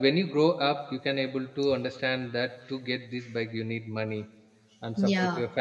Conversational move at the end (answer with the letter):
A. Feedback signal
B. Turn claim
A